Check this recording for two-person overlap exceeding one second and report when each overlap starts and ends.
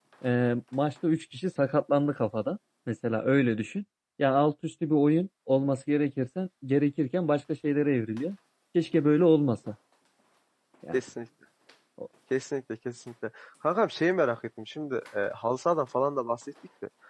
none

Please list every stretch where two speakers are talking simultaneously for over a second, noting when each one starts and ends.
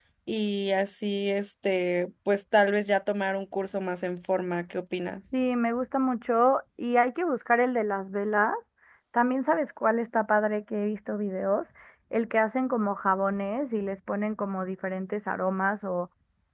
none

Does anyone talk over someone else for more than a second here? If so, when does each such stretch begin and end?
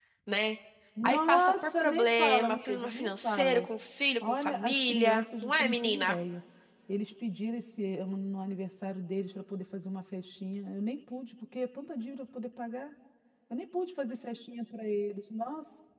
1.1-3.6, 4.2-6.2

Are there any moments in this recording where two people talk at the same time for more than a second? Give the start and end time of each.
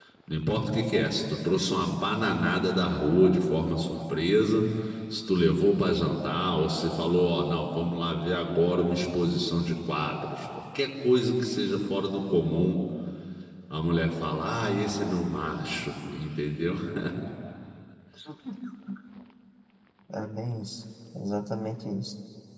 none

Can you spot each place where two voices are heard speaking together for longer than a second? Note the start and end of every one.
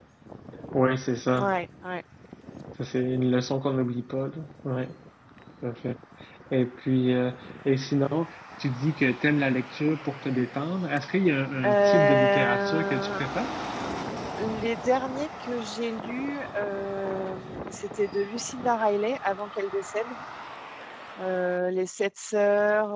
11.6-13.2

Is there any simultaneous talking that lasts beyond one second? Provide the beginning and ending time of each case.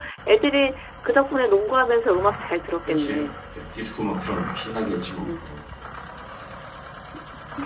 none

